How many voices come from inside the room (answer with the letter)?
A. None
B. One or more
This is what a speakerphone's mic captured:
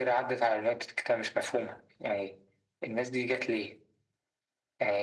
A